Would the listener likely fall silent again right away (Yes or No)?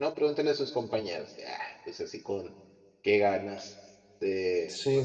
Yes